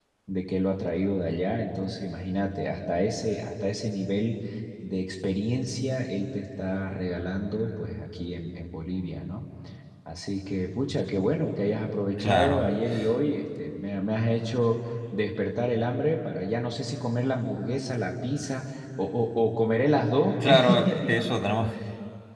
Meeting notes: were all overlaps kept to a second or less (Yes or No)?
Yes